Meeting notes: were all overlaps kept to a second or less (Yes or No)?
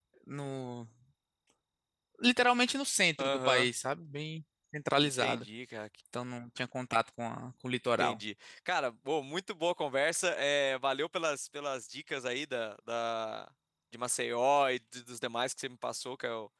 Yes